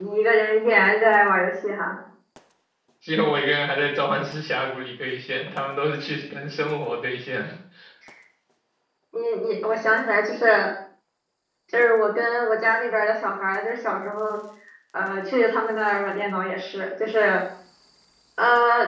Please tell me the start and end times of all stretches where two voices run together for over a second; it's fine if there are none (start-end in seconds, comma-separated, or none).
none